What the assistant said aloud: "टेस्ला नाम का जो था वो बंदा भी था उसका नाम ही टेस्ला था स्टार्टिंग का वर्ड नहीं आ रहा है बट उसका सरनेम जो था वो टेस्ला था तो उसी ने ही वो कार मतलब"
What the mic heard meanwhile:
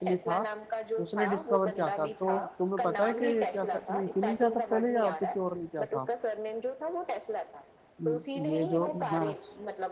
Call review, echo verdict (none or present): present